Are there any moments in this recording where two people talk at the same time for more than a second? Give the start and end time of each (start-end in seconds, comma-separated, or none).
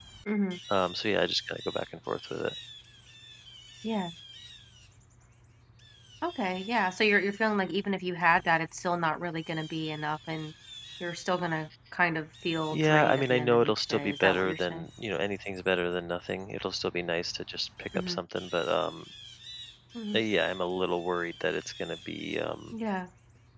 12.7-14.8